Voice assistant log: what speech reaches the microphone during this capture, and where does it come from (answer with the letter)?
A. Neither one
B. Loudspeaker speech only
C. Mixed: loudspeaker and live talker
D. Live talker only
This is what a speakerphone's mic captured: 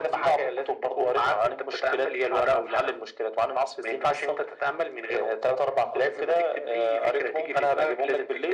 B